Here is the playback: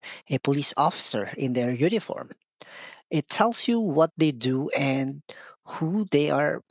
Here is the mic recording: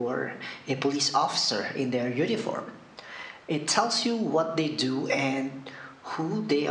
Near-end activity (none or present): none